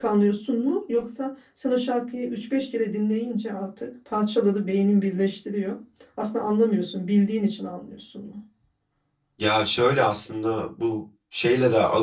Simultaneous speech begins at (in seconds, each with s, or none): none